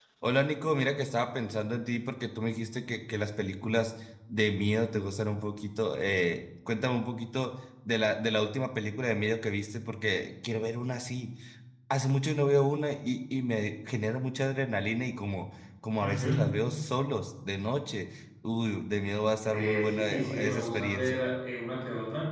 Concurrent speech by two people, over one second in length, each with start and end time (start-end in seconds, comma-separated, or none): 19.4-21.2